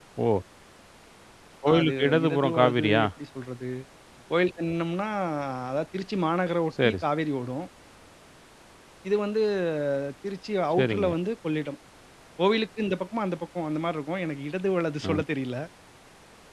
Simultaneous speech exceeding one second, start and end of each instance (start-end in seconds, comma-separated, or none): 1.7-3.0